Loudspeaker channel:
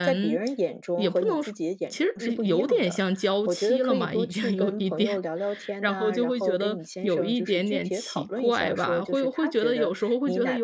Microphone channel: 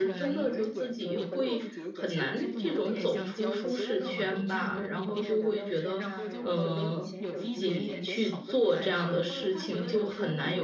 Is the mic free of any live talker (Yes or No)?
No